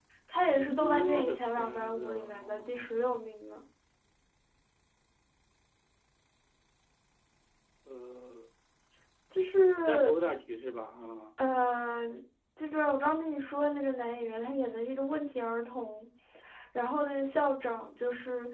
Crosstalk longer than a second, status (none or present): present